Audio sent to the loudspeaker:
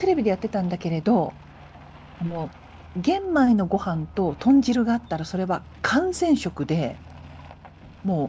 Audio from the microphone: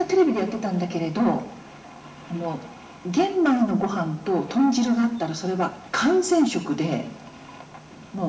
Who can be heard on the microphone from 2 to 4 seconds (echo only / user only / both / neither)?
echo only